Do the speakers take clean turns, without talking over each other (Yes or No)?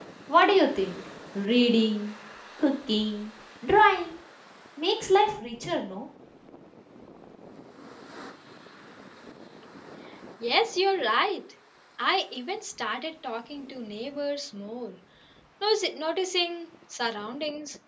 Yes